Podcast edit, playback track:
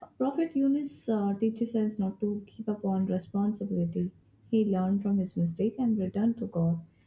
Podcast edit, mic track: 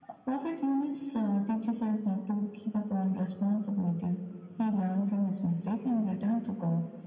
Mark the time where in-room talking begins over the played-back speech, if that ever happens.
none

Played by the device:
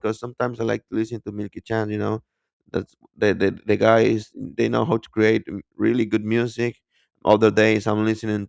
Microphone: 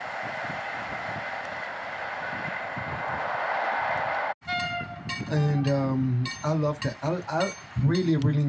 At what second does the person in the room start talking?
5.3 s

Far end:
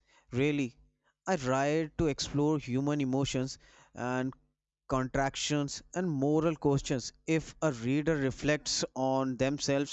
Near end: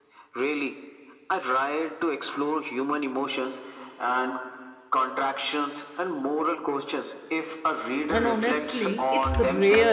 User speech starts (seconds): 8.1 s

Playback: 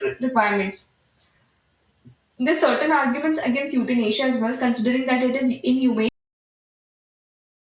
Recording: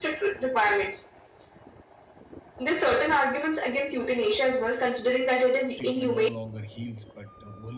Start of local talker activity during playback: 5.7 s

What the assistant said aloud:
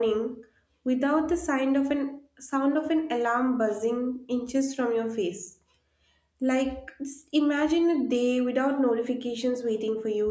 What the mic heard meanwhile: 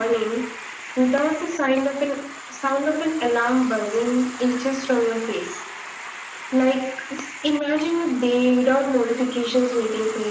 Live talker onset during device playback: none

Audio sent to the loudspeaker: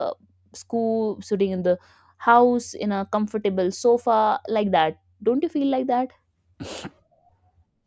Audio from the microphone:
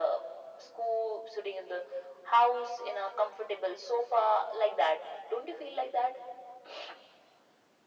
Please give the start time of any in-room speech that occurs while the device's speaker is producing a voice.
none

